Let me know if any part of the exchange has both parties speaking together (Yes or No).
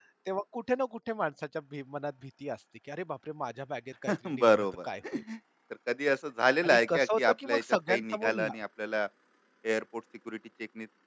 Yes